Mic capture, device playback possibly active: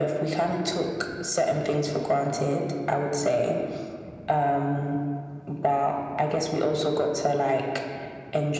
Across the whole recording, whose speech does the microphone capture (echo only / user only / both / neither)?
echo only